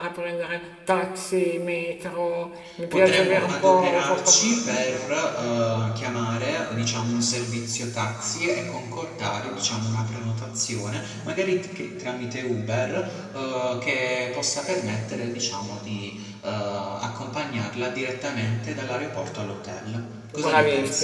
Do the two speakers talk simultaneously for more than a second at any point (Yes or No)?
Yes